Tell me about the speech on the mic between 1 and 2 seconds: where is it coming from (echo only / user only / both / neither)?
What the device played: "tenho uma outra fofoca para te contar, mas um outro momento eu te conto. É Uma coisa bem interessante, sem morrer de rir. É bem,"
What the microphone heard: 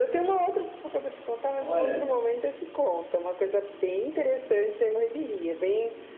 both